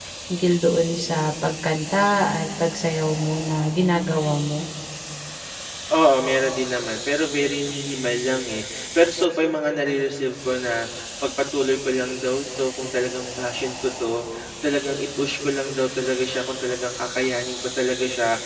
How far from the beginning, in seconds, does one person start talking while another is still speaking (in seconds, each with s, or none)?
none